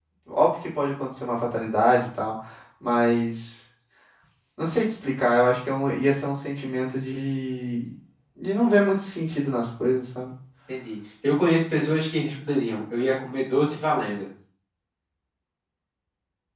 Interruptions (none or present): none